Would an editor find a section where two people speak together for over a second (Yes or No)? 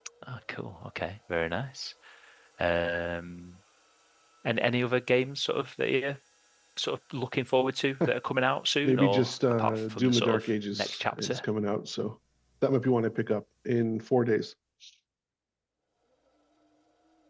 Yes